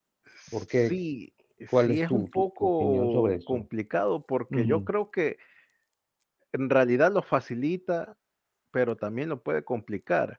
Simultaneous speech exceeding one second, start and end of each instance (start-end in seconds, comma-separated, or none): 1.7-3.6